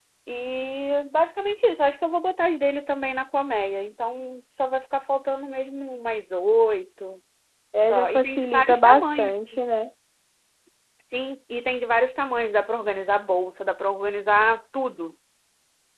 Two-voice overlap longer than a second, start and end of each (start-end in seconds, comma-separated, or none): 7.9-9.3